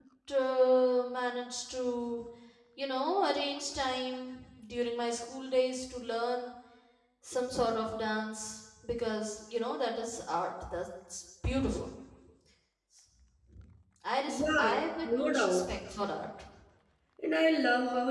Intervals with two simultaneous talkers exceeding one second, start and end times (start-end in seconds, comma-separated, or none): 14.3-15.6